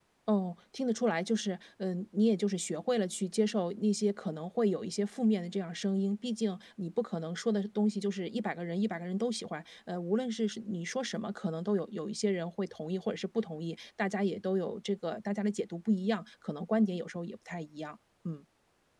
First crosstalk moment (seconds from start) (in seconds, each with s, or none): none